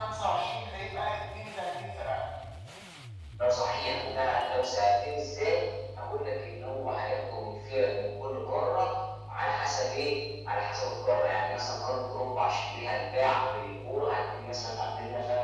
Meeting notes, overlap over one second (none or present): none